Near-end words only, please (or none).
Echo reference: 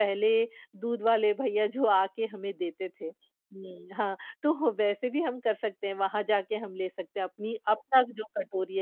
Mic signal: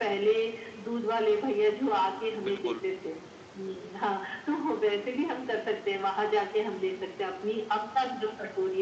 बिल्कुल।